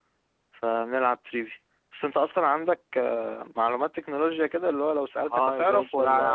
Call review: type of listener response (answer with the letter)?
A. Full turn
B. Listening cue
A